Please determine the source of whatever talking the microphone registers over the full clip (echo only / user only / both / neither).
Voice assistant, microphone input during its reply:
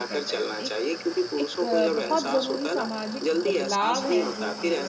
both